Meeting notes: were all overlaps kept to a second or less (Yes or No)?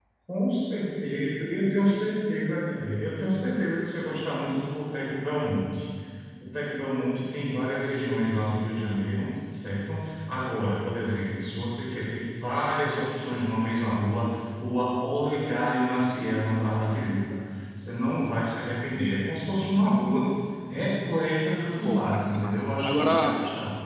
No